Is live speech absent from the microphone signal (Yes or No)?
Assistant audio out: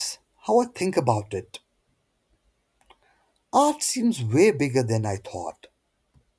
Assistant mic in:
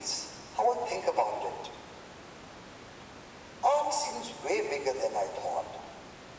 Yes